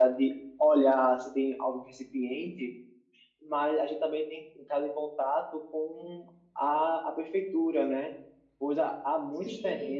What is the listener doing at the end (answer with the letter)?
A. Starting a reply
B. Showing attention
B